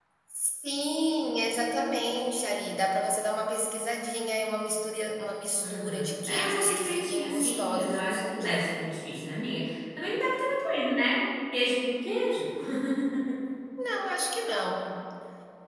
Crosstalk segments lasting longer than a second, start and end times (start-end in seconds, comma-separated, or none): 5.6-8.7